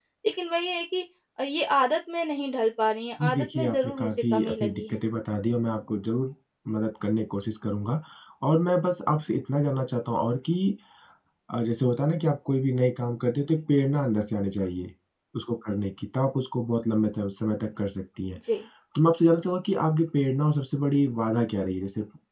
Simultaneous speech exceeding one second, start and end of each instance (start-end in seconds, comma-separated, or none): 3.2-5.0